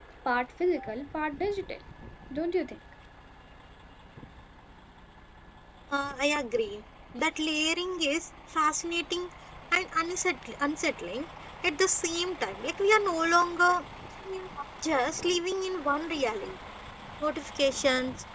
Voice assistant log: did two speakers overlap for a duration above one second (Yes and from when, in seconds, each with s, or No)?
No